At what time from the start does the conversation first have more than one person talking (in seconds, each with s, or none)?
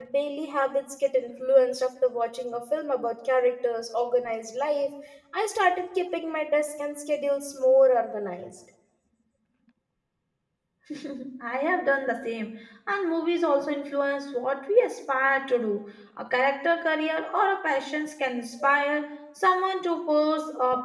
none